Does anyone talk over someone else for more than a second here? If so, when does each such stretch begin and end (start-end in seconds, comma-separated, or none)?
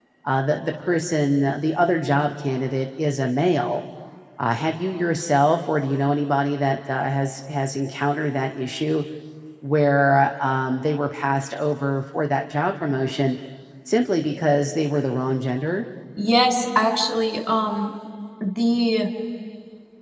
none